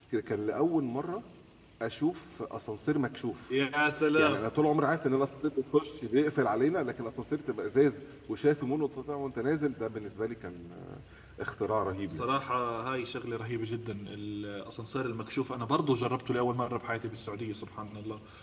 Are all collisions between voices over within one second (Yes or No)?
Yes